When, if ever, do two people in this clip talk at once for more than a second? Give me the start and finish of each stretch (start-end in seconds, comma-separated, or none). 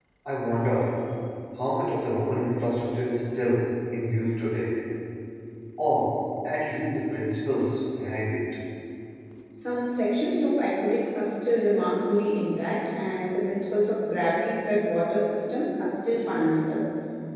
none